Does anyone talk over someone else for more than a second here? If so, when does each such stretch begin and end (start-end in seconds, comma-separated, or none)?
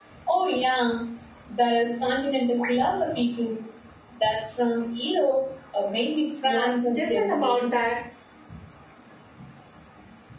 6.5-7.7